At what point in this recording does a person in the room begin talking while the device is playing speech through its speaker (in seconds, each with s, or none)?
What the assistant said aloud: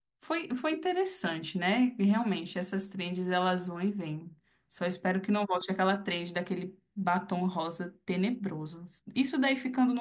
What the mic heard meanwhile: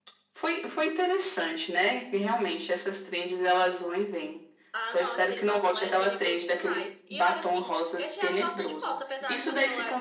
4.7 s